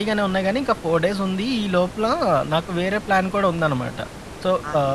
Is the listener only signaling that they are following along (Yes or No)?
Yes